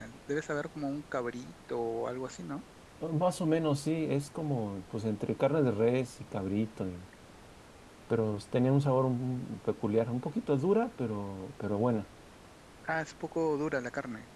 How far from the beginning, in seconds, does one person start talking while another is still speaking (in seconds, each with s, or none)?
none